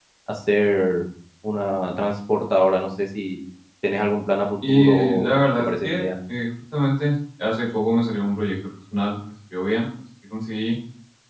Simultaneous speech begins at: 4.7 s

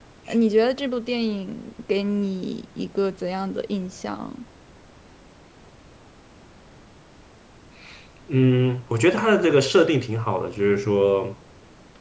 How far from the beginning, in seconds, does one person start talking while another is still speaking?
none

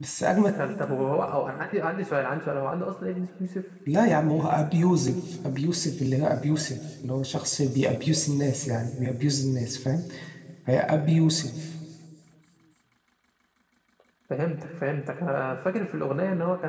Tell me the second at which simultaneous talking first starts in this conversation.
none

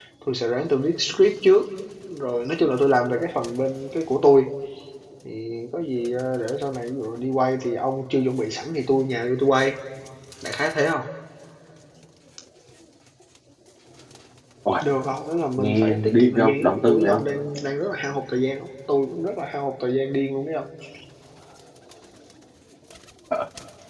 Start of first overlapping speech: 15.6 s

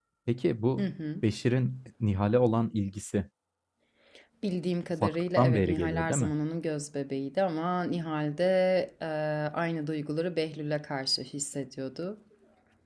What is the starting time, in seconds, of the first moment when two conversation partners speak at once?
5.0 s

